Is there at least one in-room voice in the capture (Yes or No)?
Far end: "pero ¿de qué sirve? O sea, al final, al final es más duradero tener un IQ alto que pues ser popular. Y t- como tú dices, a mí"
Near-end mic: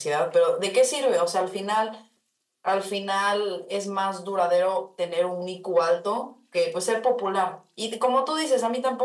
No